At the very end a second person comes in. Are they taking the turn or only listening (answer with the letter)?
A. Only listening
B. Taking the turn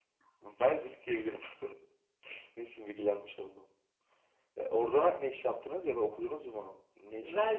B